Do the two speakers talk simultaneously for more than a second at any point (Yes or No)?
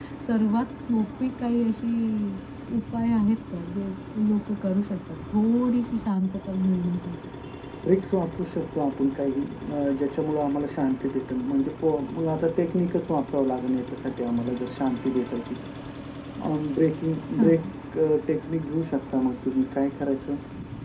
No